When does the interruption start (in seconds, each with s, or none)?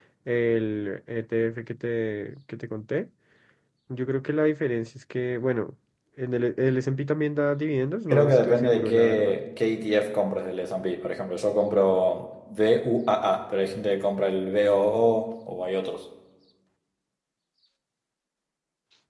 8.1 s